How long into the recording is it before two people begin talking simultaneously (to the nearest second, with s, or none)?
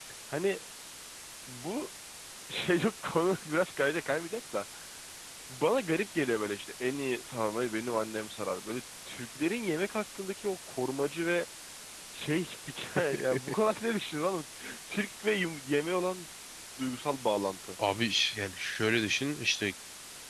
none